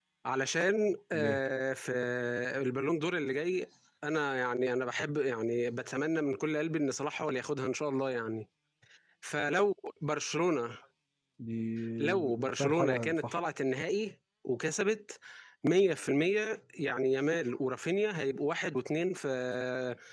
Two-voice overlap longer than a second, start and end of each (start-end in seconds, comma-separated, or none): 12.1-13.4